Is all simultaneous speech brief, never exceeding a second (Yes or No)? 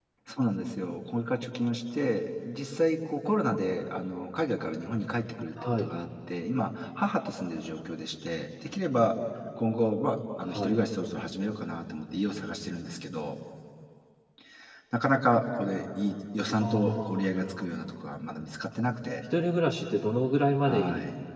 No